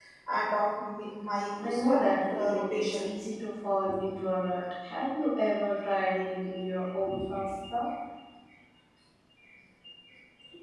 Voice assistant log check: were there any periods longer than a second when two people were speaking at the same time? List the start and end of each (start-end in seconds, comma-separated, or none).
1.6-3.1